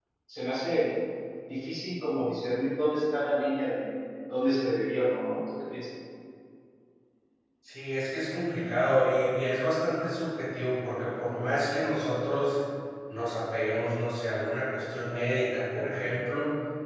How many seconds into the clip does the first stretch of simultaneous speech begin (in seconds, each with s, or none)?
none